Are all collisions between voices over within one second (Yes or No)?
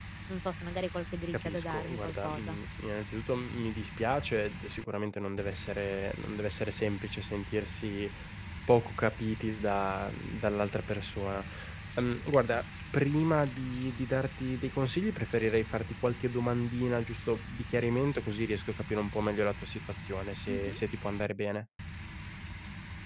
No